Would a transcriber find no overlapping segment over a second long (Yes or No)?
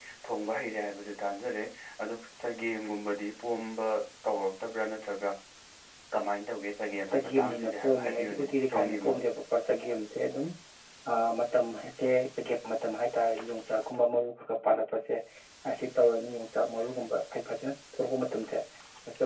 No